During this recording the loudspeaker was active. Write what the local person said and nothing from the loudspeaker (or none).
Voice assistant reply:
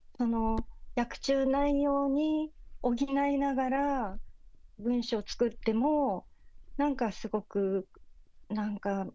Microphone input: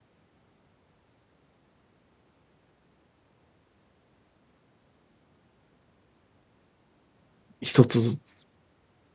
一つずつ、